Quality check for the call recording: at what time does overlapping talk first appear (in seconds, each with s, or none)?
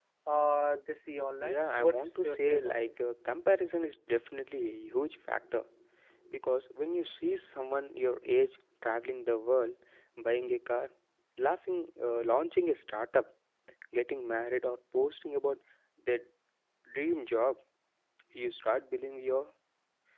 1.4 s